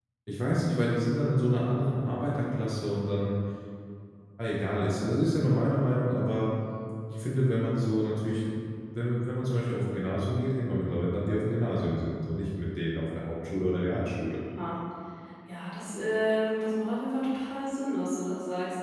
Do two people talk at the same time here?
No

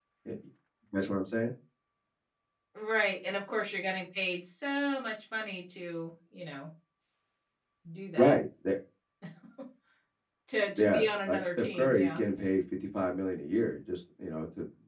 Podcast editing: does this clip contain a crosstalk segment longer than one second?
Yes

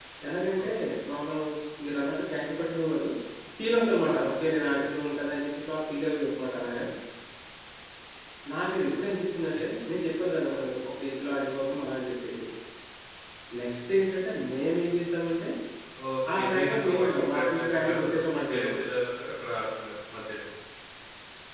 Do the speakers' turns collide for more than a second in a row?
Yes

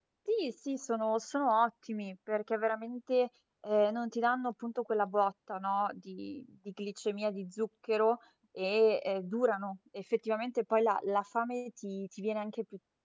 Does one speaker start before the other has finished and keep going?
No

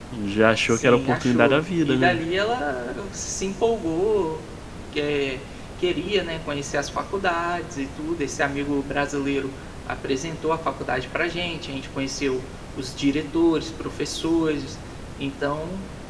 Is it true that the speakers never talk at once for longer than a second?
No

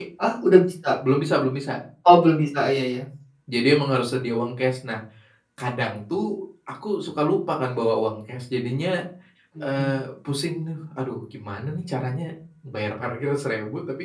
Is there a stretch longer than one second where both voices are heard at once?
No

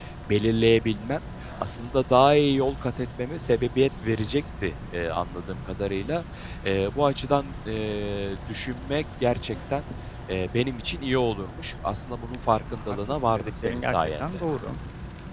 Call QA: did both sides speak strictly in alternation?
No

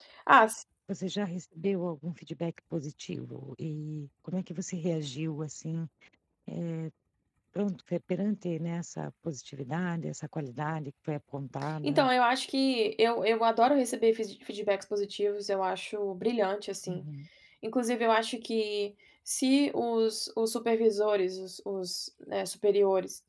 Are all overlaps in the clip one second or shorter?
Yes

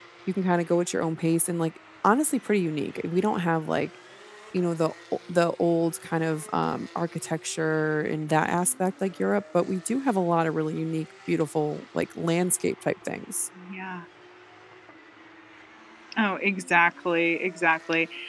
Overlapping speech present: No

